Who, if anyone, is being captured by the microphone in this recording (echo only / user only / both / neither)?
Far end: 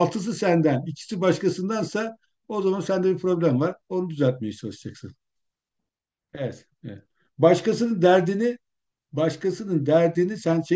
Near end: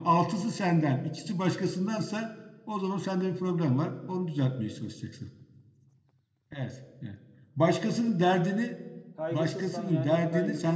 both